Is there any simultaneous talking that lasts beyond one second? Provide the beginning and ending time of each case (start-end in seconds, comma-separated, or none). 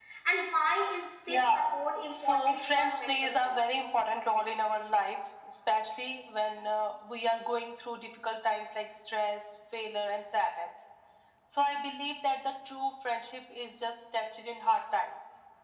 2.1-3.6